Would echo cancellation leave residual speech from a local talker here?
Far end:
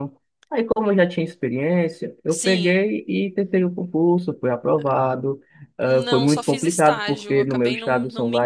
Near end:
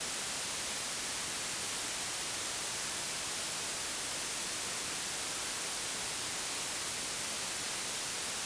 No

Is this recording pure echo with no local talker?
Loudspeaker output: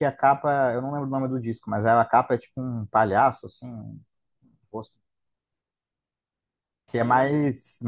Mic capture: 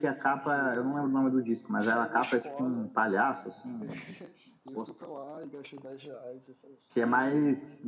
No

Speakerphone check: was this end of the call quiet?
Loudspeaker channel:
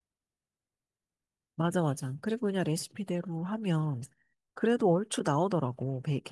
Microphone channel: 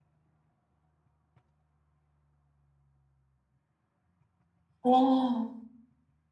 No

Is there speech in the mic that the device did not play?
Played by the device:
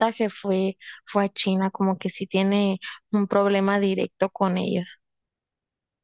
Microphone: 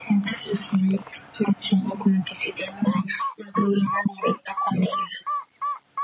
No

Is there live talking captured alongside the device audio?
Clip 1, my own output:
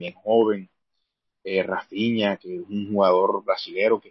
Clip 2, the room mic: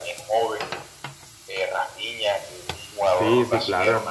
Yes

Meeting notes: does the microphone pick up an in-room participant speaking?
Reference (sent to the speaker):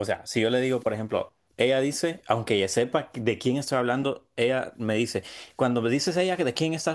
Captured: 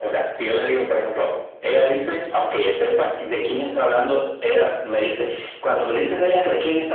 No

